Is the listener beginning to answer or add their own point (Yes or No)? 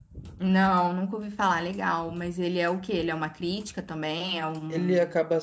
Yes